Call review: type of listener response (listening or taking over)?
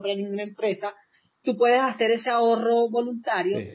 listening